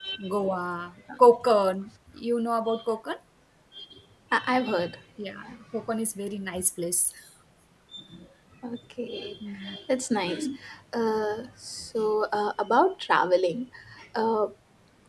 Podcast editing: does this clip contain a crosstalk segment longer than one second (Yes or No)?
No